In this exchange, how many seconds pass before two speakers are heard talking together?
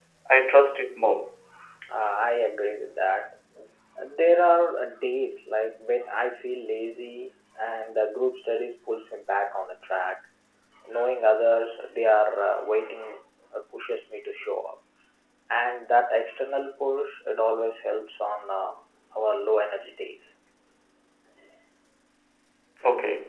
none

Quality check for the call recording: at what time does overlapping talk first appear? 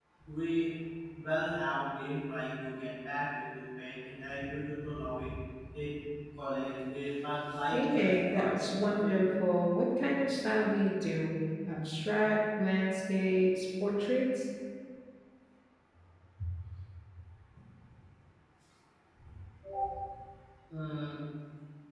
8 s

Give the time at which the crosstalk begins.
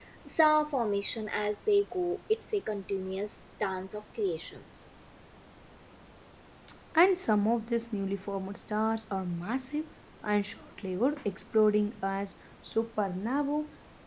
none

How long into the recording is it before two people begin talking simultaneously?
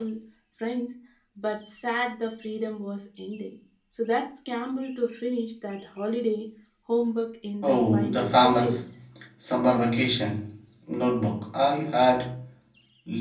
8 s

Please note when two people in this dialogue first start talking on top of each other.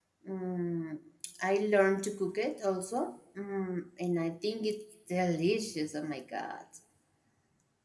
none

